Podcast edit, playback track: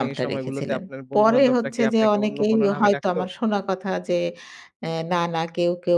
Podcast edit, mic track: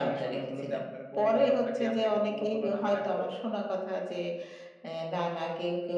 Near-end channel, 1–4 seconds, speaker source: echo only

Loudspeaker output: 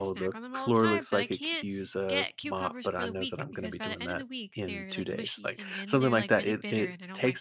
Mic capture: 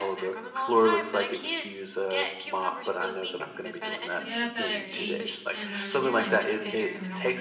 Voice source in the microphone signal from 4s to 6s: both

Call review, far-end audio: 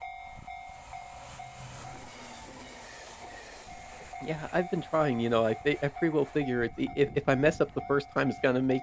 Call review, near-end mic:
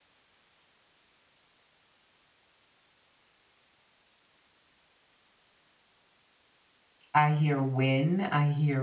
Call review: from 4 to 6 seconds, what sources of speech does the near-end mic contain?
neither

